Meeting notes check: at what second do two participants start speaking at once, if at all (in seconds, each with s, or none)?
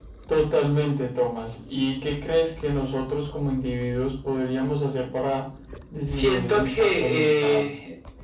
6.1 s